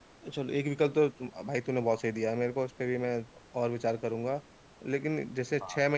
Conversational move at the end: listening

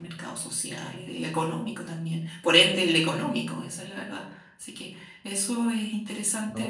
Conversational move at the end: taking over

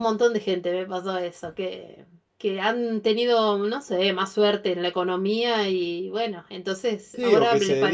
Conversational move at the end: taking over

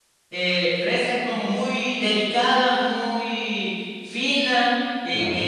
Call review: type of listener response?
listening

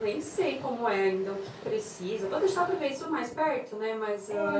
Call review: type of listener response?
taking over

